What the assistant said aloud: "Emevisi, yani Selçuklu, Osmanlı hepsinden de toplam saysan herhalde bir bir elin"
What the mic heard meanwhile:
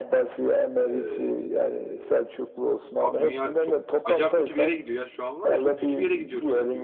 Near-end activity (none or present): present